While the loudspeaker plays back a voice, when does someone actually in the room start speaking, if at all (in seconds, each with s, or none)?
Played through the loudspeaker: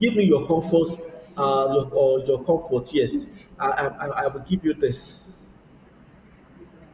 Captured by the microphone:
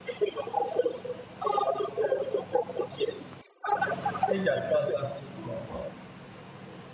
4.3 s